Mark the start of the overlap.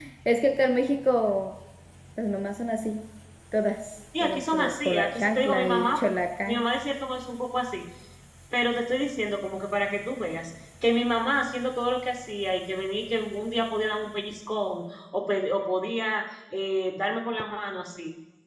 4.2 s

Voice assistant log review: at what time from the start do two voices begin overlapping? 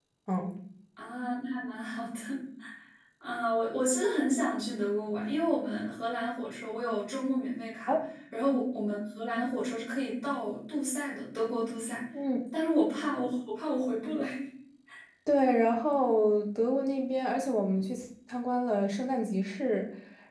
none

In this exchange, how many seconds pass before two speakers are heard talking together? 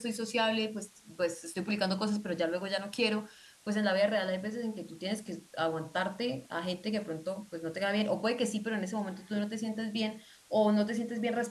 none

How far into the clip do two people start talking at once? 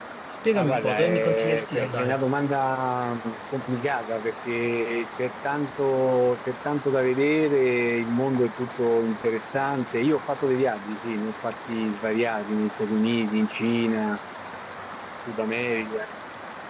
0.5 s

